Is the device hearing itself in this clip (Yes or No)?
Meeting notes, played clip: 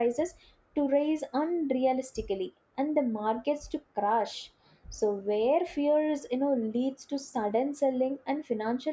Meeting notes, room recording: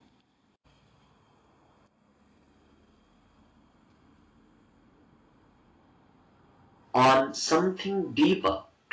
No